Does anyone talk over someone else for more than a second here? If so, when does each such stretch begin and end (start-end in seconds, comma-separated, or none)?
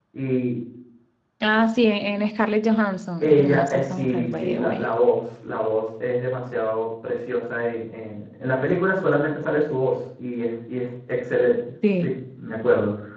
3.2-4.9